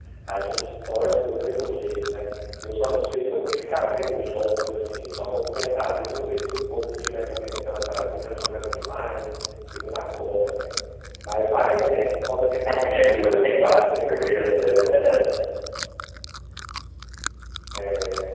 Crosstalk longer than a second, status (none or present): present